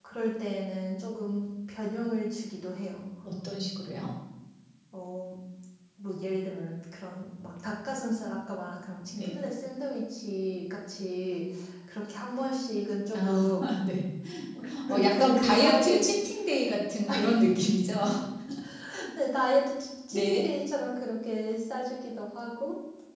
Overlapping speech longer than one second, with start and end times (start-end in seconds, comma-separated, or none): 14.9-16.1